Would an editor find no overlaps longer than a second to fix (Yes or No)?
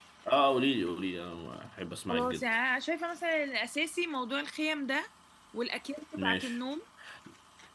Yes